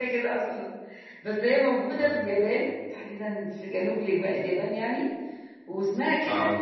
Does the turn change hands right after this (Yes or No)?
No